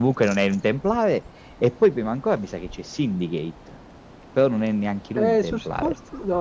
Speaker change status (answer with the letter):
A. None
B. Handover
B